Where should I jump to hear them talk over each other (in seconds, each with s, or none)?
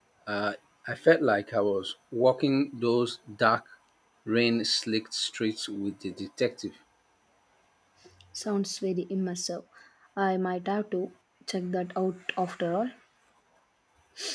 none